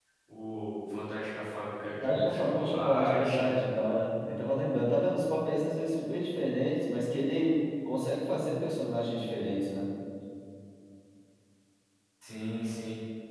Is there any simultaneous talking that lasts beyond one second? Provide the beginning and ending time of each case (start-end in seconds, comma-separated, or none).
2.0-3.5